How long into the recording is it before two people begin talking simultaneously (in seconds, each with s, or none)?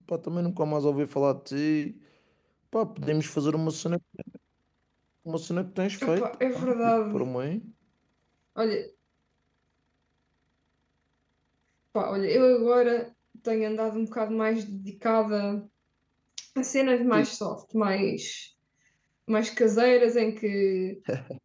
6.0 s